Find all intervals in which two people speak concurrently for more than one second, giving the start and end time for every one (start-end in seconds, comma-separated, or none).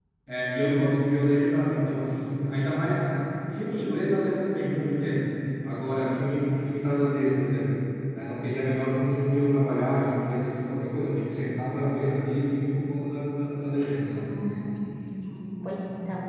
none